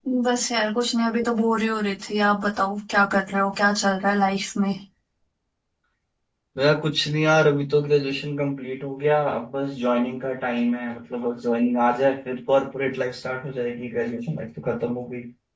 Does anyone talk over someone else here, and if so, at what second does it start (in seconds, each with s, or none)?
none